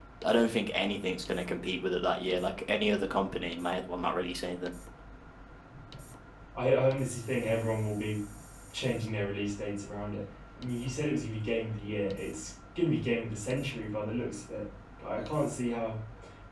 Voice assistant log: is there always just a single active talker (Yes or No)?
Yes